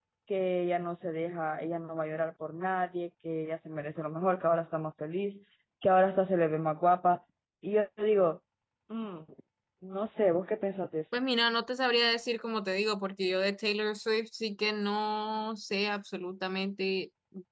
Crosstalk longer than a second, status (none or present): none